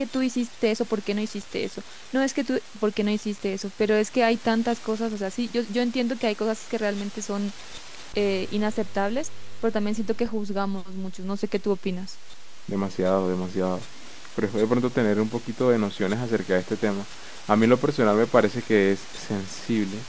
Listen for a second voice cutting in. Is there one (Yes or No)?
No